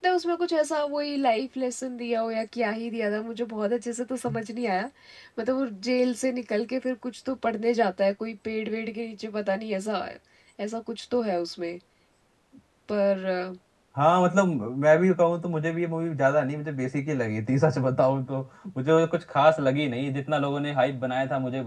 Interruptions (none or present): none